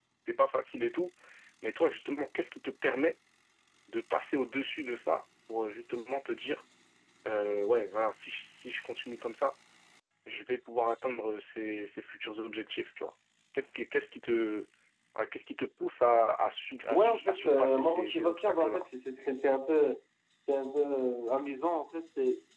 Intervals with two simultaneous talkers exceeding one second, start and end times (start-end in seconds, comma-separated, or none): 16.9-18.9